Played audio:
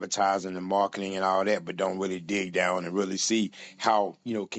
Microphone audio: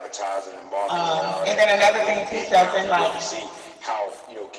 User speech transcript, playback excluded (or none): Um, and then another thing too, Shelton, like